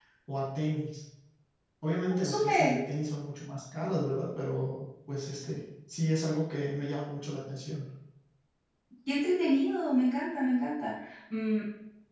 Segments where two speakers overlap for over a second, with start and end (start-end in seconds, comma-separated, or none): none